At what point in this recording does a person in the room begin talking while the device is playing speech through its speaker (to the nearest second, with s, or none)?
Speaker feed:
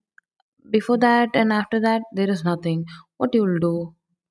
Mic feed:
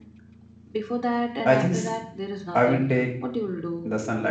1 s